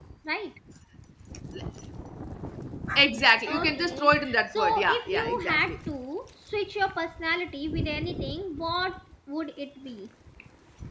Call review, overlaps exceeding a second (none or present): present